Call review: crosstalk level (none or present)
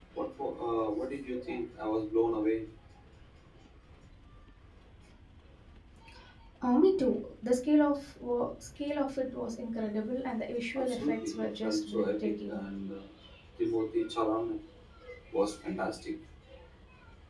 present